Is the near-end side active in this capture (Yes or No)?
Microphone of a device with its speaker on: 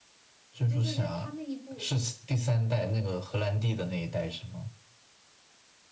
Yes